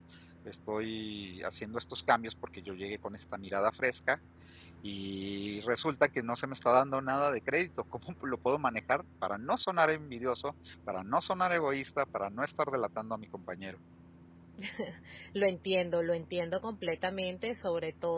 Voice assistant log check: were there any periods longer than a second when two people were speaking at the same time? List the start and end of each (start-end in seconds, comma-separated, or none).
none